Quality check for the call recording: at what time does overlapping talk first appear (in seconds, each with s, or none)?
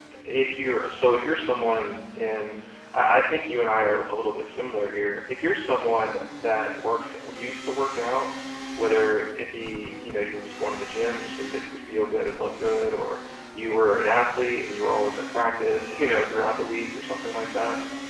none